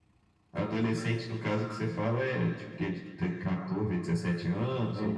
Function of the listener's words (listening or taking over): taking over